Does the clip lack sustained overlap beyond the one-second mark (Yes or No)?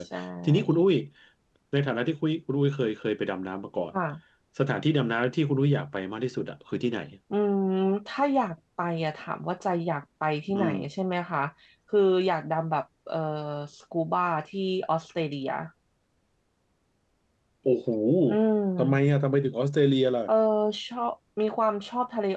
Yes